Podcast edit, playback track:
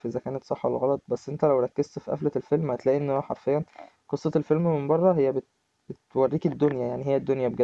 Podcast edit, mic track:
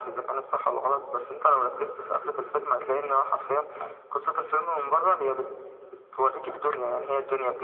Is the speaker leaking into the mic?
Yes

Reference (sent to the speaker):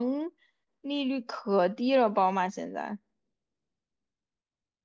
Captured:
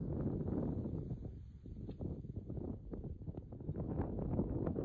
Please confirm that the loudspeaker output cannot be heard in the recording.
Yes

